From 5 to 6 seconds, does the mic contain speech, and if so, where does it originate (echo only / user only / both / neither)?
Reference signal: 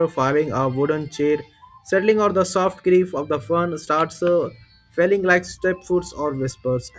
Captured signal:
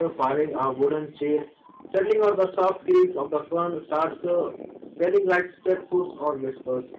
echo only